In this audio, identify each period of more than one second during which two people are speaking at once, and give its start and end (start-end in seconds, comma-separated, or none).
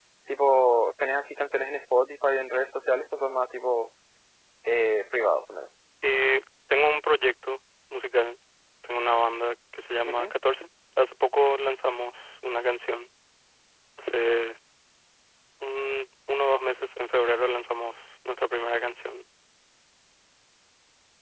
none